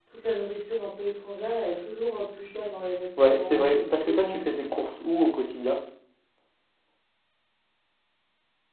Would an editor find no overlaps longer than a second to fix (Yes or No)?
No